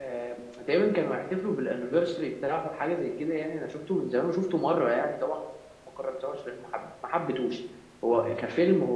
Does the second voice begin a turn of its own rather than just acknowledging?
No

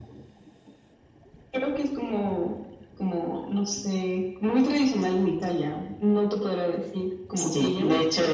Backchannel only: No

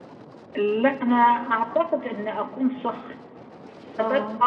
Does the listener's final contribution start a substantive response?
No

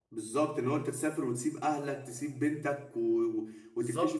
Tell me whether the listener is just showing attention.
No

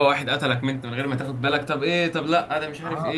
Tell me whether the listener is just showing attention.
No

